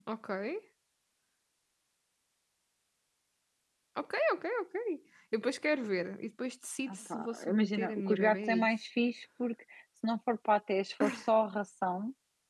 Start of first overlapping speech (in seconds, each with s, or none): 6.9 s